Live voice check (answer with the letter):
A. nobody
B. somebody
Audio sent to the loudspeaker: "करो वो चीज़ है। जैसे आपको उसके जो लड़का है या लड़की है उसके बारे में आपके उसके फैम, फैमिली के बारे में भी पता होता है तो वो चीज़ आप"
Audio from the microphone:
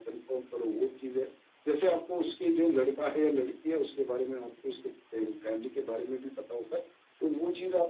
A